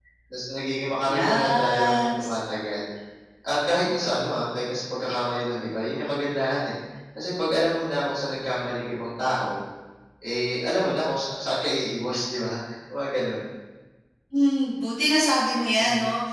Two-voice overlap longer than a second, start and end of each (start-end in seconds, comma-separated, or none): 1.1-2.4